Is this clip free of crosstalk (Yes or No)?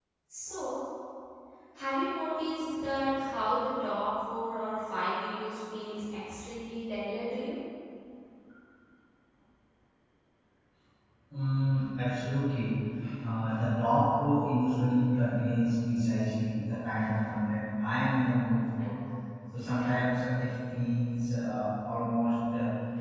Yes